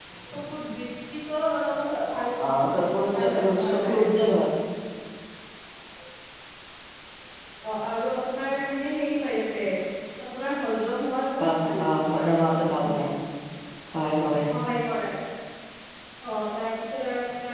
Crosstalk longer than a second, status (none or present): present